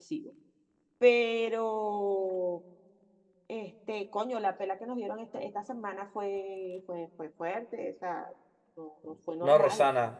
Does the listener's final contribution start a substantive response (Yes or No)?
Yes